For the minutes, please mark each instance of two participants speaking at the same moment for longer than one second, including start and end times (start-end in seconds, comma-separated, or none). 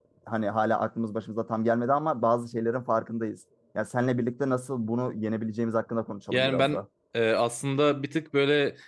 none